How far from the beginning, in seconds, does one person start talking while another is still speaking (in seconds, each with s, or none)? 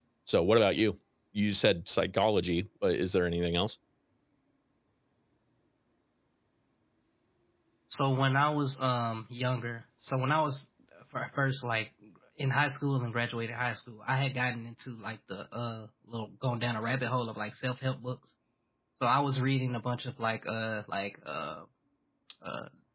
none